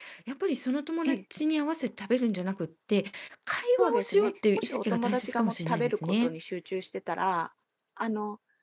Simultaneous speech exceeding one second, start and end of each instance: 3.8-6.3

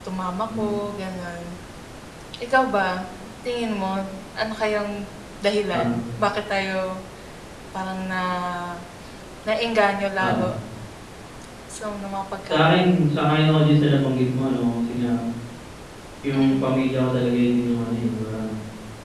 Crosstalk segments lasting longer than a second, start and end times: none

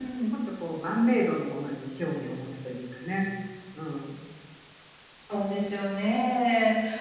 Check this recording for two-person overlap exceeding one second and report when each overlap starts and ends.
none

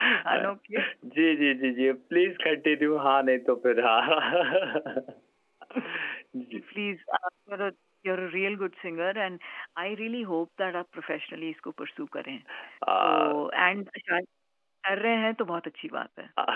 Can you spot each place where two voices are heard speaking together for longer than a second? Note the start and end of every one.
none

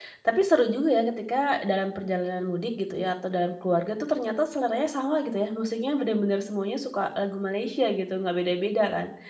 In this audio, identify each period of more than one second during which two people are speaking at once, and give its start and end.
none

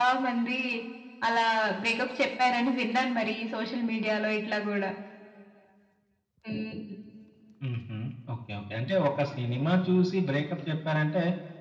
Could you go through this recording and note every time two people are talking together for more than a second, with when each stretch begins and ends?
none

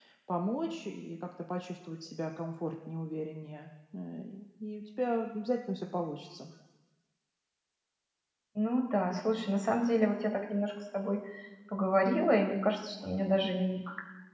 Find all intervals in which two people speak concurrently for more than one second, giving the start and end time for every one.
none

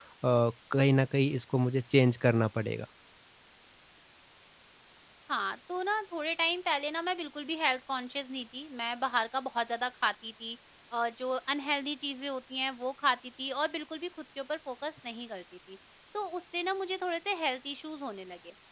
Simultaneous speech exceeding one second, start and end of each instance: none

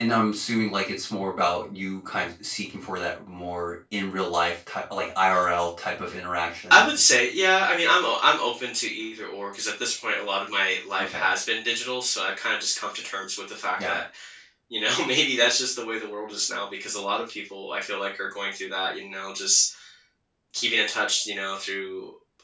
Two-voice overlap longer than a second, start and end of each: none

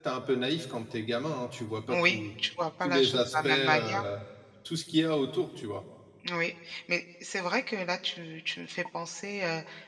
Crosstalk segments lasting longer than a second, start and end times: 2.8-4.0

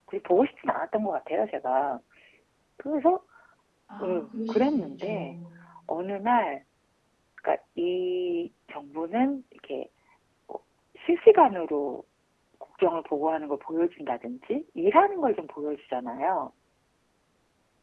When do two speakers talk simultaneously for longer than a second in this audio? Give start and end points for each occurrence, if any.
4.0-5.4

